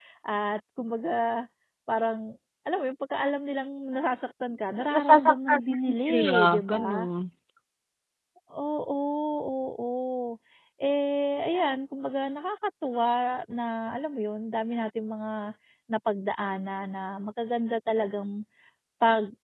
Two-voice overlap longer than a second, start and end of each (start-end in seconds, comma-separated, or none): 4.9-7.1